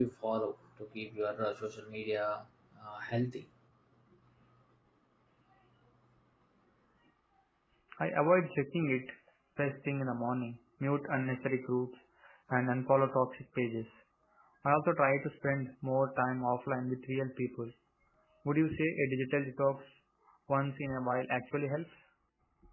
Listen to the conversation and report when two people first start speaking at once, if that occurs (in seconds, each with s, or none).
none